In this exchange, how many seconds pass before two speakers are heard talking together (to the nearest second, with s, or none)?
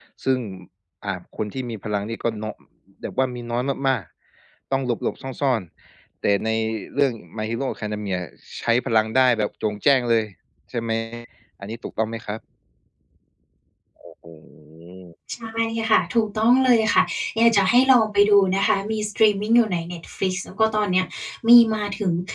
none